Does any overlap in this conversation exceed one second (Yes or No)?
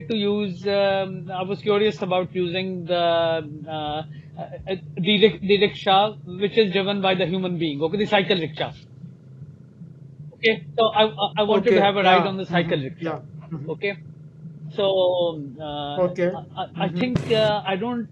Yes